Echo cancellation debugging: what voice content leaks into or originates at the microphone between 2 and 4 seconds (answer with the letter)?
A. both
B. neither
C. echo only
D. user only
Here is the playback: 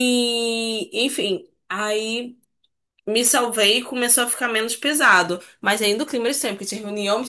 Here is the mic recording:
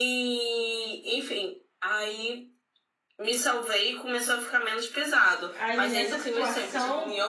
C